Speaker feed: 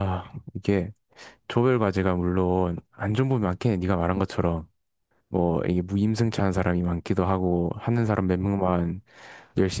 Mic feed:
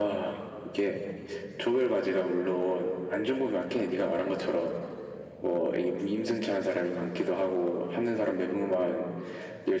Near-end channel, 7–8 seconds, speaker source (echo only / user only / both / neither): echo only